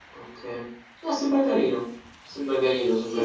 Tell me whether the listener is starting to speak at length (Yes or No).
Yes